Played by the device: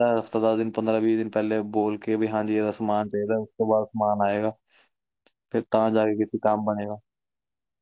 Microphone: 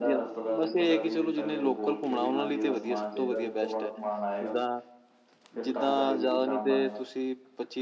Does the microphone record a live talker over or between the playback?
Yes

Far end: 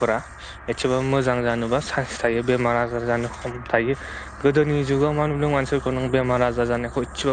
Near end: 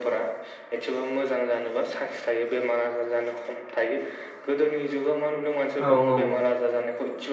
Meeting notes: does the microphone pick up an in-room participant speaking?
Yes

